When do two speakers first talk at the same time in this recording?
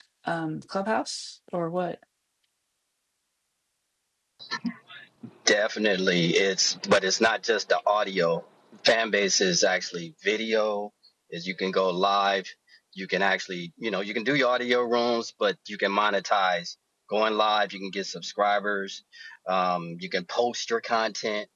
none

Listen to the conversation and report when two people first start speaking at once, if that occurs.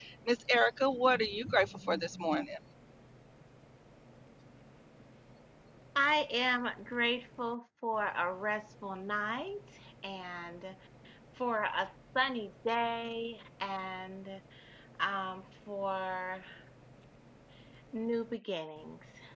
none

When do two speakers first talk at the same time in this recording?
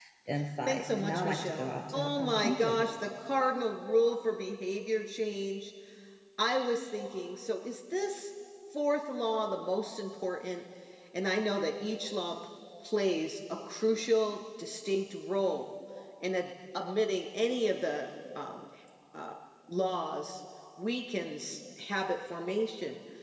0.7 s

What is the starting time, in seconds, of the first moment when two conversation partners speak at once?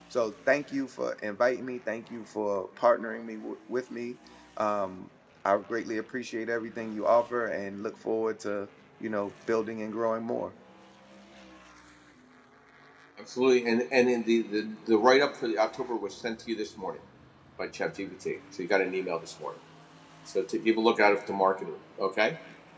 none

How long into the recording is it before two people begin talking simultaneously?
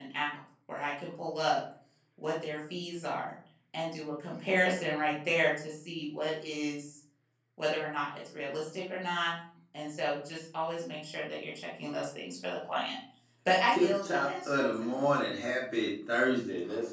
13.7 s

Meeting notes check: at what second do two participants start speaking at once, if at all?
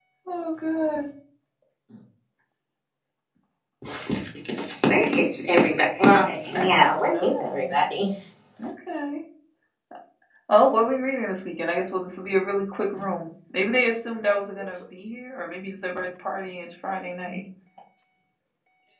6.5 s

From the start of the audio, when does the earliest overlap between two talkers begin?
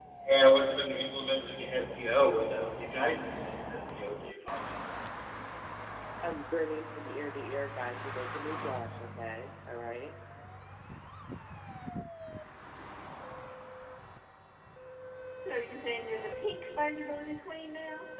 none

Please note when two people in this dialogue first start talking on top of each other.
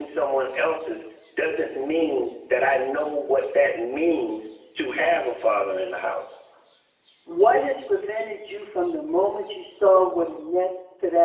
none

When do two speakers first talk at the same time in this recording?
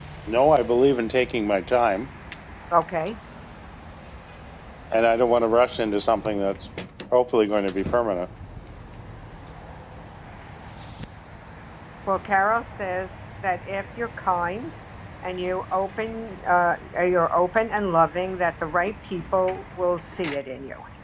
none

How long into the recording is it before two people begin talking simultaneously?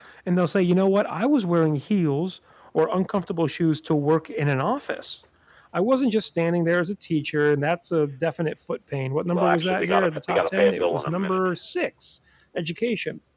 9.3 s

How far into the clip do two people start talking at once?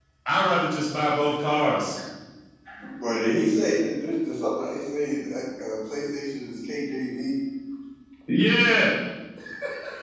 none

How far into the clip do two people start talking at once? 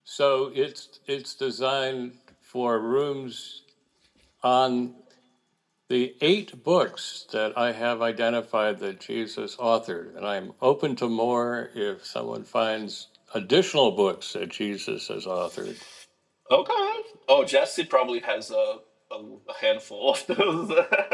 none

